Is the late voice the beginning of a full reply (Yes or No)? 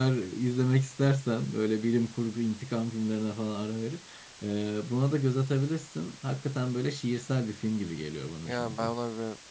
Yes